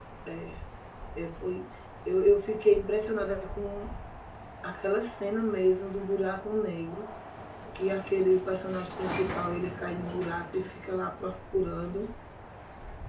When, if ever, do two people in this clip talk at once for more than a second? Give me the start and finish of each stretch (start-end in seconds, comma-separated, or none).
none